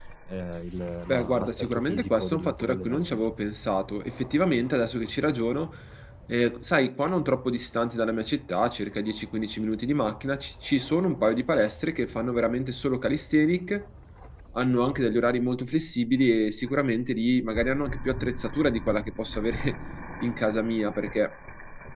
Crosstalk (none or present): present